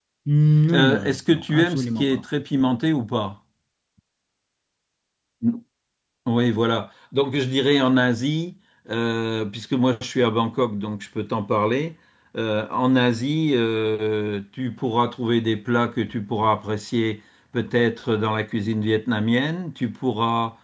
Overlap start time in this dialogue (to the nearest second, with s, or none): 1 s